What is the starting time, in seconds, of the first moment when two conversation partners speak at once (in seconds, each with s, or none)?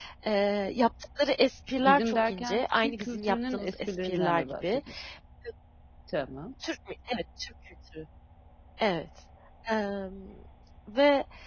1.8 s